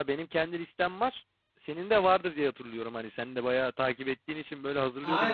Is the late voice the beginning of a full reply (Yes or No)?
Yes